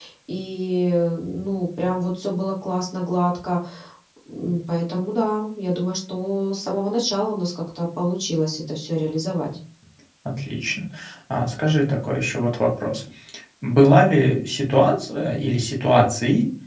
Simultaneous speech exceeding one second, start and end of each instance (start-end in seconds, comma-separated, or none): none